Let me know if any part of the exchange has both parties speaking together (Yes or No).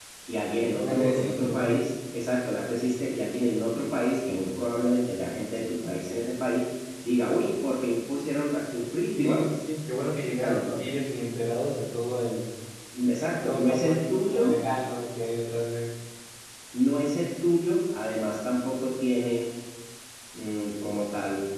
Yes